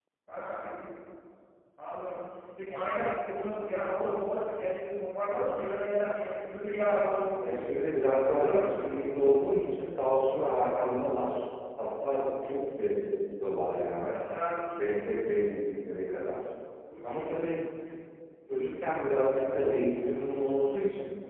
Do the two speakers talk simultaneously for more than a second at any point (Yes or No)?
Yes